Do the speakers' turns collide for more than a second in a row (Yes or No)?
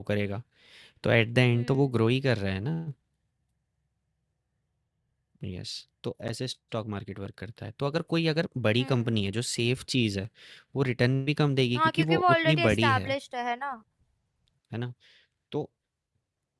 Yes